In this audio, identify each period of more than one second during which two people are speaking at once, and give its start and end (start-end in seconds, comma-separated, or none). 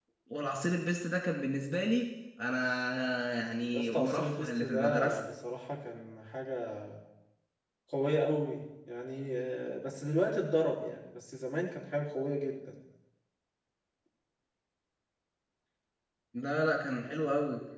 3.7-5.2